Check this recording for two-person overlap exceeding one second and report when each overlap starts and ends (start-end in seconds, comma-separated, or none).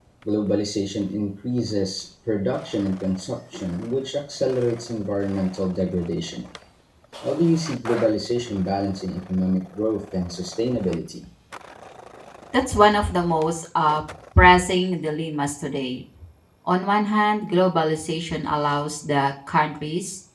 none